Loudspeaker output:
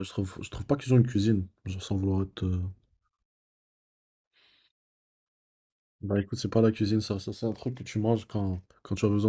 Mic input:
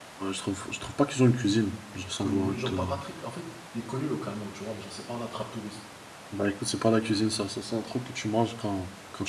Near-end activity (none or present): present